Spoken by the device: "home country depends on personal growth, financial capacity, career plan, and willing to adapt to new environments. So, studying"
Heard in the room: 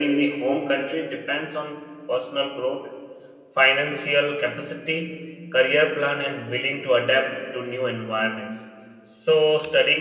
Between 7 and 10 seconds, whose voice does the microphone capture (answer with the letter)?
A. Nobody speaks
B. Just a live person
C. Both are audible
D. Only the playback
D